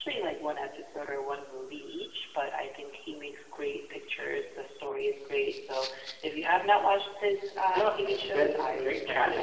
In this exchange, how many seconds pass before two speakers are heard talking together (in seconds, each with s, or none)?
7.6 s